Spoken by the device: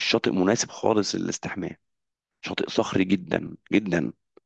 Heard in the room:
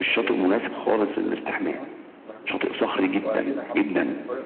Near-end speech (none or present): present